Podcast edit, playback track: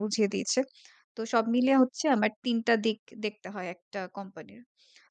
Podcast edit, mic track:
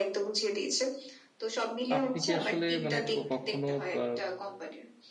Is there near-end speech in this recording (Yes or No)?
Yes